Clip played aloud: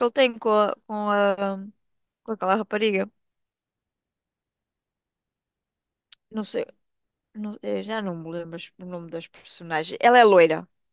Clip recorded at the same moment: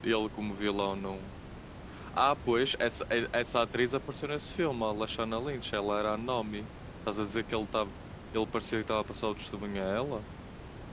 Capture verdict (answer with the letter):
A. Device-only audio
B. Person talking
B